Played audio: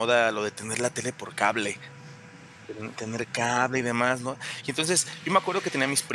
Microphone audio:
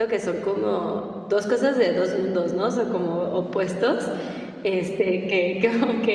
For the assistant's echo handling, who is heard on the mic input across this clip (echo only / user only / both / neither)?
user only